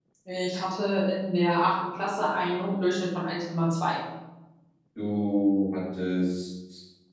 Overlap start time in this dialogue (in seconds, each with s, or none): none